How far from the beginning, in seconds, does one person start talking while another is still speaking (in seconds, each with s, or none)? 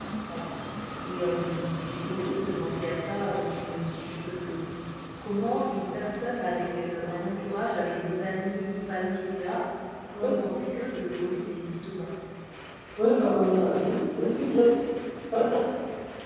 none